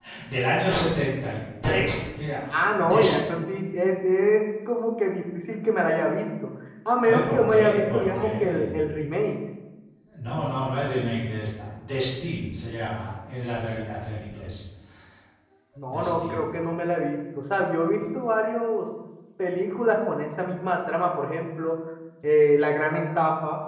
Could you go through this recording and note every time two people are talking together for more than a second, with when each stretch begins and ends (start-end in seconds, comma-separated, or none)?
7.0-8.8